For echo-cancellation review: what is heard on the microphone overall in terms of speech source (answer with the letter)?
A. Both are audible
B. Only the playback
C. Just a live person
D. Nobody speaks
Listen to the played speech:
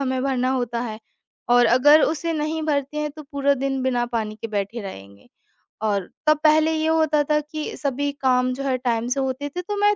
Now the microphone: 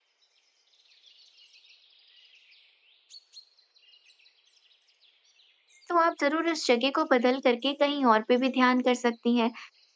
C